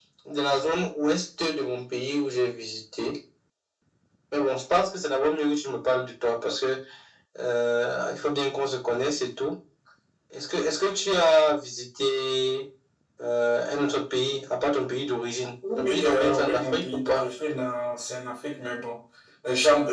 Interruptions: present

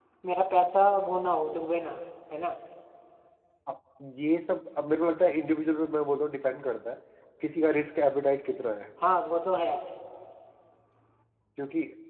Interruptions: none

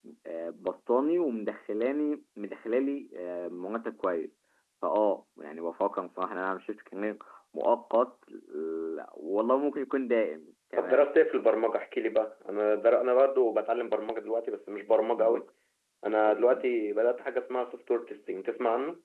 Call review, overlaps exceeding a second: none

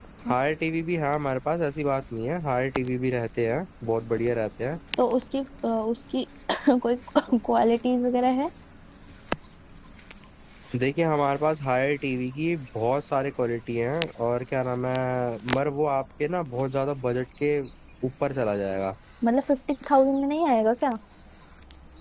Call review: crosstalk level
none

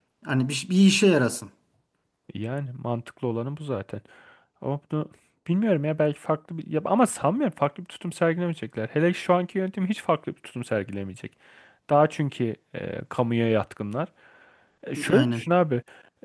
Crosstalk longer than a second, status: none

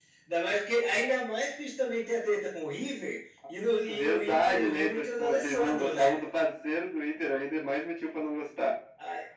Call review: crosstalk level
present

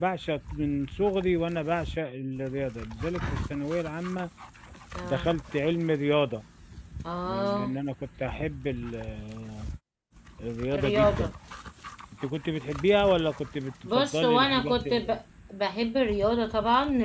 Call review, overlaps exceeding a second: present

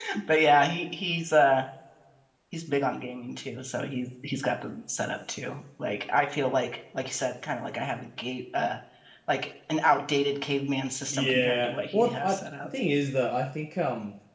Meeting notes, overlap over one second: present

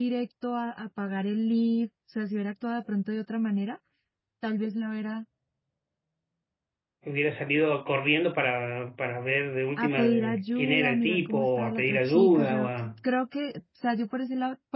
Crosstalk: present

